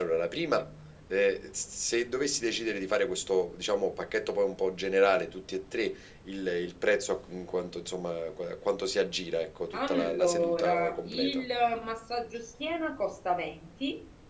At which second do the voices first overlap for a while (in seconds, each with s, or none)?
9.7 s